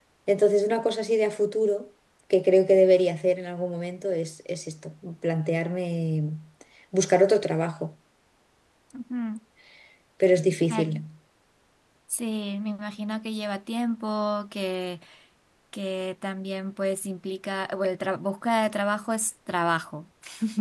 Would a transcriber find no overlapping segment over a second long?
Yes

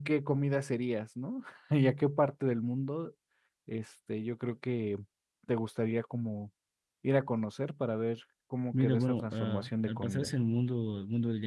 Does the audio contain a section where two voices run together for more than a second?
Yes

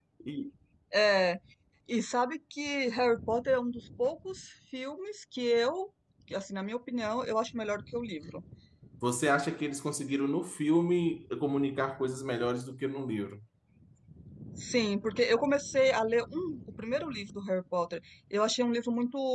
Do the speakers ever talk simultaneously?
No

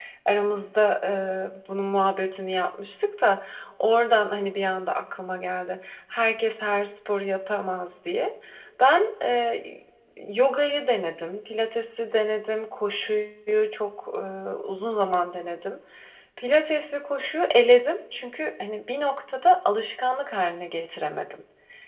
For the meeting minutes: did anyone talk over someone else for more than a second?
No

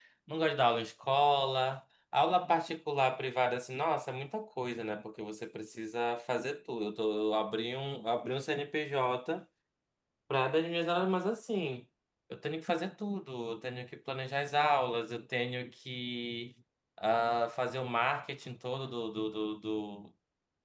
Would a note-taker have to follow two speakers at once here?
No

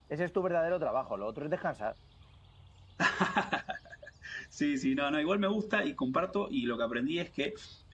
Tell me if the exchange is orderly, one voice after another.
Yes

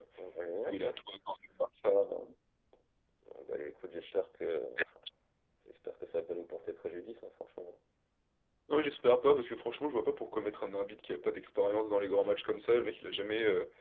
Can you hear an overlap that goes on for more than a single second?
No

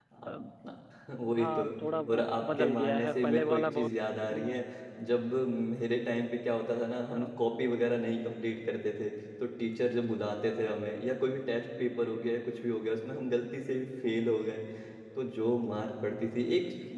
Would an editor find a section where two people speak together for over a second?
Yes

